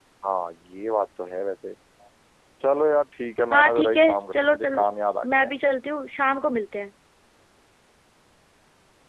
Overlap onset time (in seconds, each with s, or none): 3.5 s